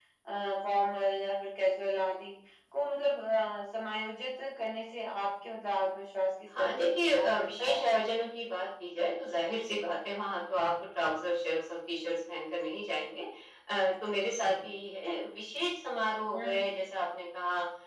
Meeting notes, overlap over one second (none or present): present